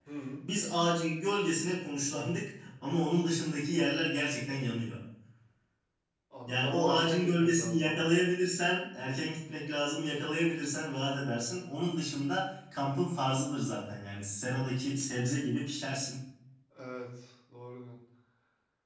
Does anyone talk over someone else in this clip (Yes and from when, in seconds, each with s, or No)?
Yes, from 6.4 s